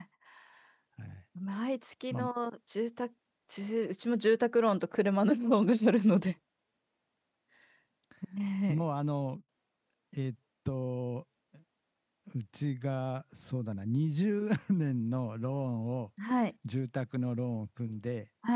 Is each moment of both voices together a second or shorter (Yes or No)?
Yes